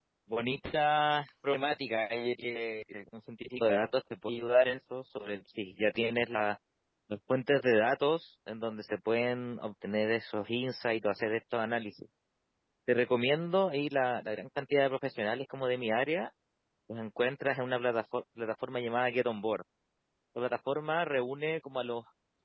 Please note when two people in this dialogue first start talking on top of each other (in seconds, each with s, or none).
none